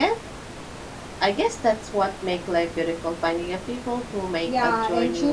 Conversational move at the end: taking over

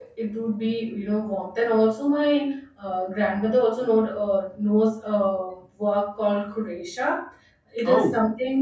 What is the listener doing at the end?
listening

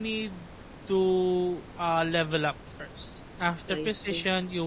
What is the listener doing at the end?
listening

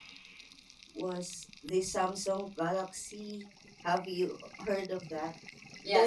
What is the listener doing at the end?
taking over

